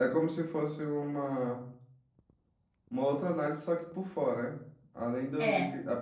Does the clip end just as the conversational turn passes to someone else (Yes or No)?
No